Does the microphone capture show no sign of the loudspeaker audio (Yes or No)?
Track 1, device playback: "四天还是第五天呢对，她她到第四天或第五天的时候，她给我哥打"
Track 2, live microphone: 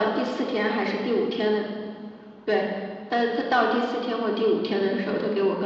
No